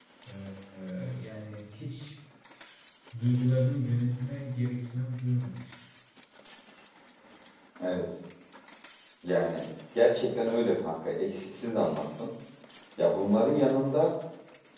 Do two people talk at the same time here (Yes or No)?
No